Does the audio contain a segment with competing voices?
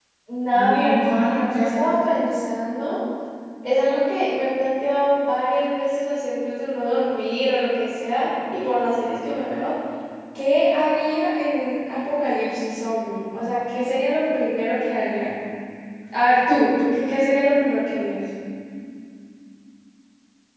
Yes, from 0.5 s

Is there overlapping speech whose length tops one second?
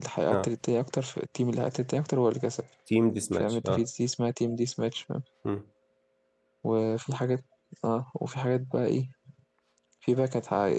No

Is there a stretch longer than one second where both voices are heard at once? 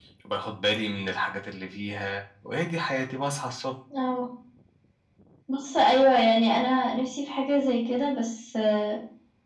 No

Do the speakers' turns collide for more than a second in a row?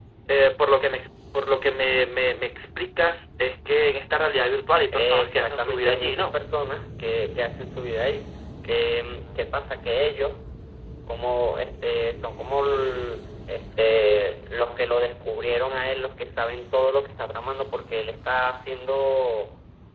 Yes, from 4.9 s

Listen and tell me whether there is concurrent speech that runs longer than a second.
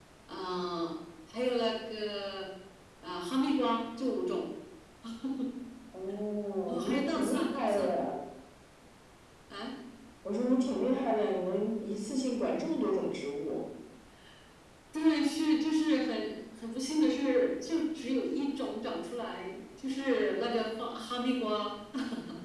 Yes, from 6.7 s

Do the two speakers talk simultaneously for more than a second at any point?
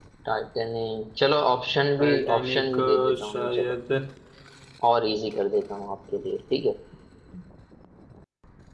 Yes, from 2.0 s

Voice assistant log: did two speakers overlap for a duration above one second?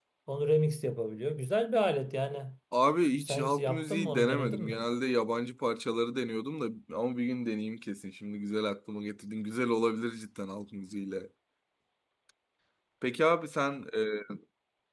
Yes, from 3.2 s

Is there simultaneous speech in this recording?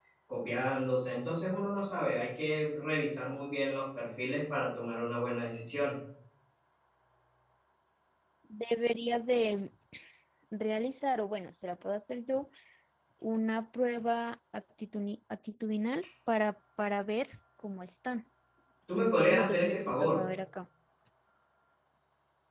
Yes, from 19.0 s

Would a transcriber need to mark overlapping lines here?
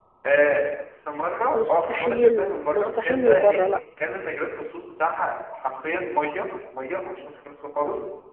Yes, from 1.5 s

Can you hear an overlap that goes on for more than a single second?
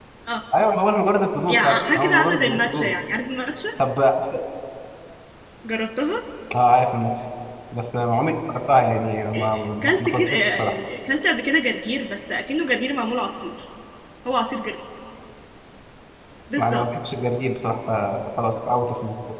Yes, from 1.5 s

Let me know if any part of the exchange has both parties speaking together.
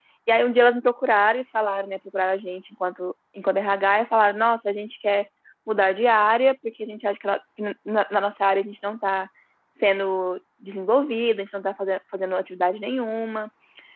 No

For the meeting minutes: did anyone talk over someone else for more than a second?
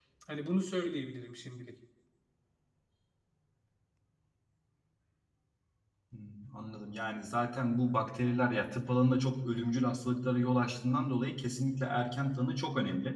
No

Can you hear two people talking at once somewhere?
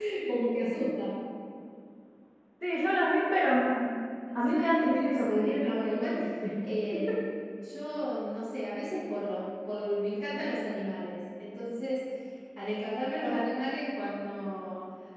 Yes, from 4.4 s

